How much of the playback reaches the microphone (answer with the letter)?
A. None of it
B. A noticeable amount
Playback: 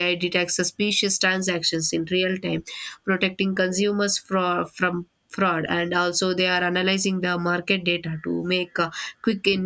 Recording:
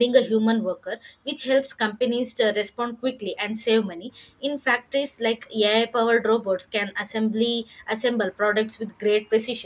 A